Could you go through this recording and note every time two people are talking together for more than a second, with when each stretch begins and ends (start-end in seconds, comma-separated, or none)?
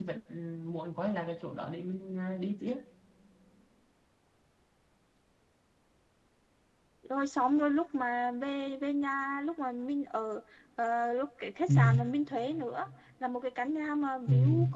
none